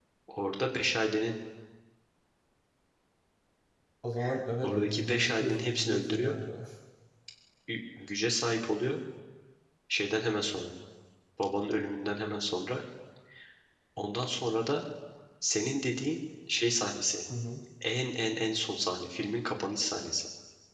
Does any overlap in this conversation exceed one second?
Yes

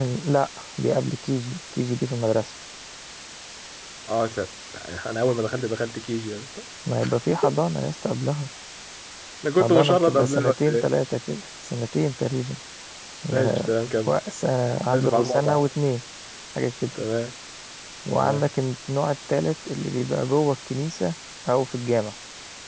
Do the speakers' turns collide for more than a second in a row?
Yes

